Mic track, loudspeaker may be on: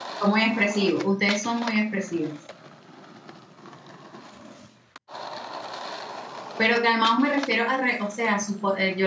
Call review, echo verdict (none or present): none